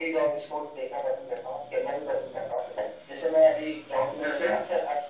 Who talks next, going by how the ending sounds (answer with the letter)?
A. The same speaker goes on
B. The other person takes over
A